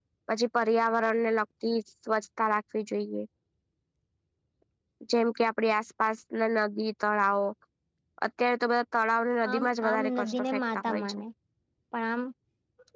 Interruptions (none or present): present